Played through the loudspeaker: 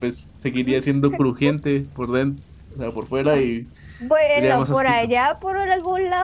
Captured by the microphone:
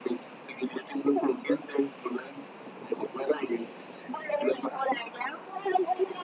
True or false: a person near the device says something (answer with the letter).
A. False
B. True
A